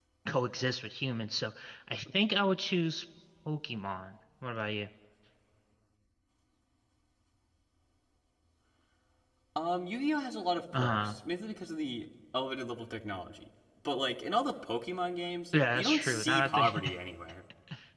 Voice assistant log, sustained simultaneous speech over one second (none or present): present